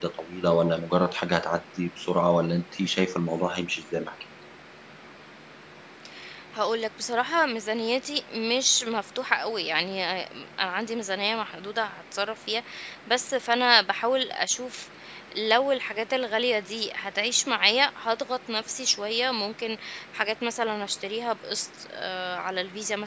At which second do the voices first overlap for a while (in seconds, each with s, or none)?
none